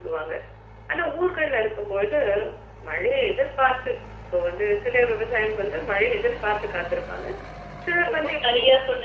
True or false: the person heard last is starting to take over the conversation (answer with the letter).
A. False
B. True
B